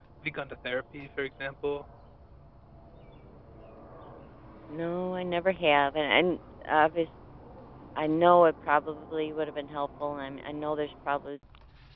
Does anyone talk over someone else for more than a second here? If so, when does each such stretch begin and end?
none

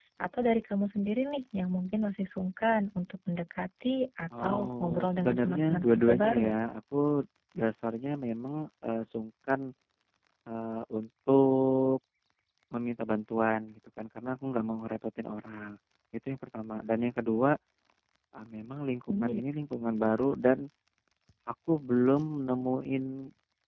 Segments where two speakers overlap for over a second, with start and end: 4.4-6.5

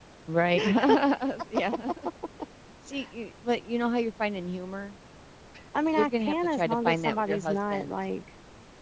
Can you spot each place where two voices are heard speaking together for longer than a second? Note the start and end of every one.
6.0-8.0

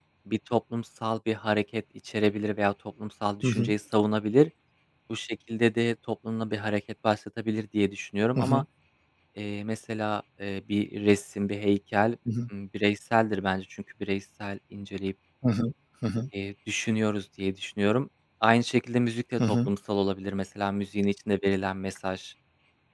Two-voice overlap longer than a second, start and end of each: none

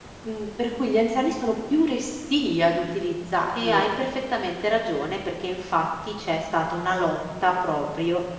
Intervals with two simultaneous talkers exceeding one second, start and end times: none

